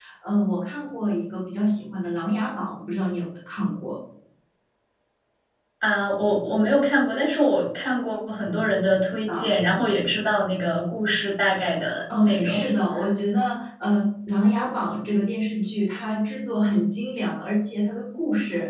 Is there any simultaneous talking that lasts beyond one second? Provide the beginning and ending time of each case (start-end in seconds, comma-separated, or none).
none